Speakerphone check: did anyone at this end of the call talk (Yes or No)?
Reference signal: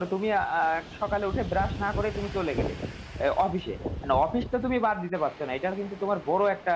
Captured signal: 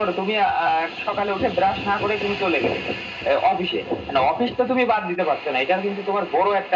No